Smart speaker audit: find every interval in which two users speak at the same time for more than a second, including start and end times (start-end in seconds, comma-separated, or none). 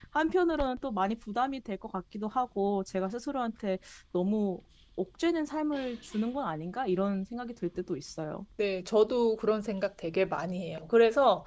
none